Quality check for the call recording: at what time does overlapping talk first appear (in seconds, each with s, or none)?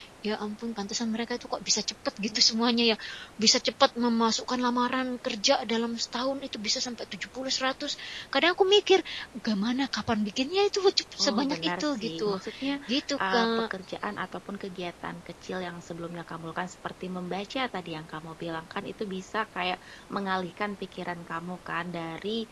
11.2 s